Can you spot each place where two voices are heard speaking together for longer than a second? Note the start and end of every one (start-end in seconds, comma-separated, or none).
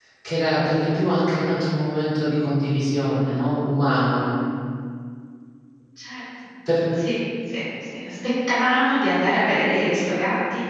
none